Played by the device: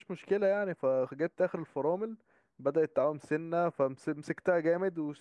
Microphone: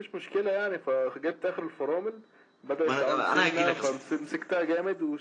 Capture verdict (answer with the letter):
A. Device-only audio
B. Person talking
B